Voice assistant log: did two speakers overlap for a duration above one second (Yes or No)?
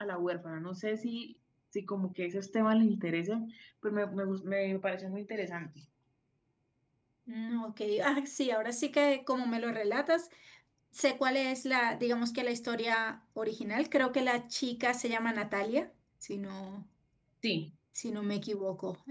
No